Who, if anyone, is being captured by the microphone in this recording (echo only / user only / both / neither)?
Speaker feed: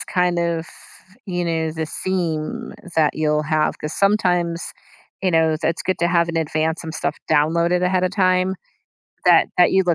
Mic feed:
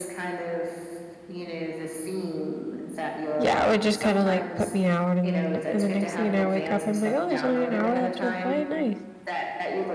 both